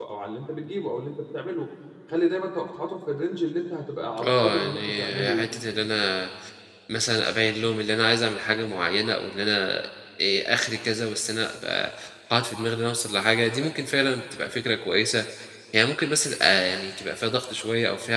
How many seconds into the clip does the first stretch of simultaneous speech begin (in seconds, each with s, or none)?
4.2 s